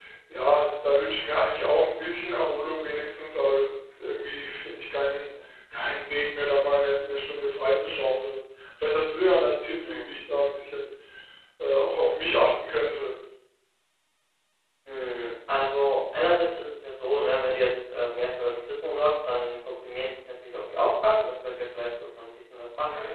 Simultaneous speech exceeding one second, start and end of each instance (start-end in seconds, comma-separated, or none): none